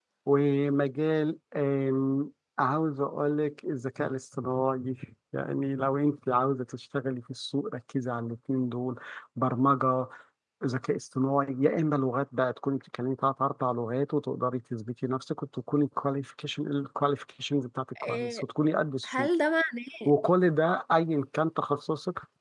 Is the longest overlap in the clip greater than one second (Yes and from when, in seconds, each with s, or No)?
No